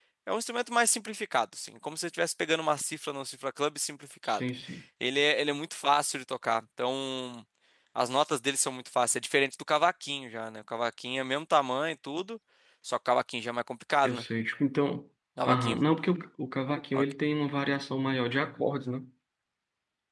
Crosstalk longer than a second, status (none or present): none